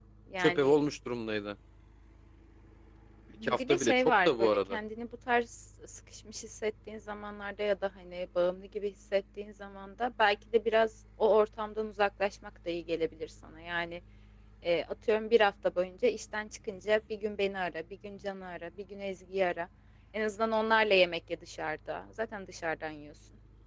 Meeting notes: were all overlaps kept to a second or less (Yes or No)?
No